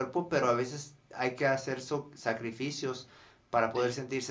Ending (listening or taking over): listening